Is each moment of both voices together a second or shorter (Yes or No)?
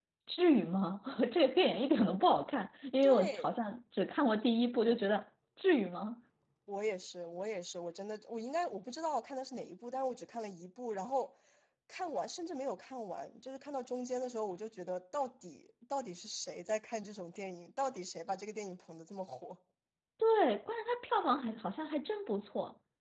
Yes